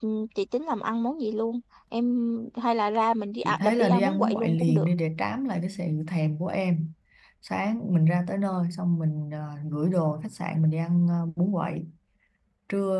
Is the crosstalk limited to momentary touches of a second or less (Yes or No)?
No